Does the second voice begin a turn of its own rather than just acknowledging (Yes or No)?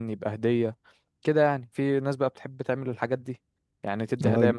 Yes